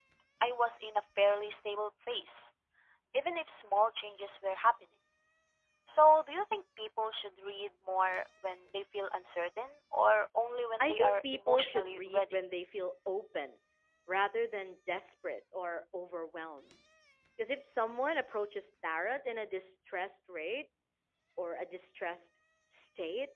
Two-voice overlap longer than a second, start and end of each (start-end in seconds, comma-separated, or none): 10.8-12.2